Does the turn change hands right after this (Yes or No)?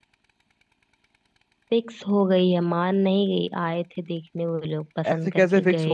Yes